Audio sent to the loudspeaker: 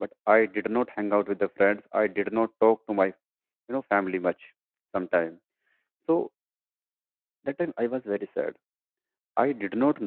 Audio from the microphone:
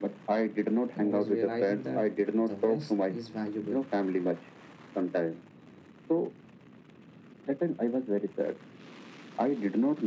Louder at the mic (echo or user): echo